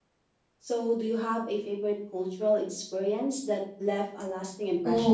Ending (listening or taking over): taking over